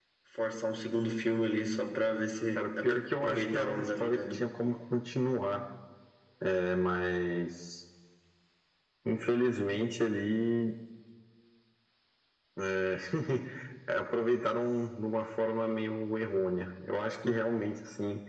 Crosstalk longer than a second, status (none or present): present